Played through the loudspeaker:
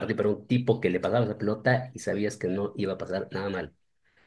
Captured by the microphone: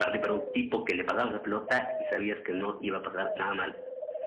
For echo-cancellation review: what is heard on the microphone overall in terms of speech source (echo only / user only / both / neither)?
echo only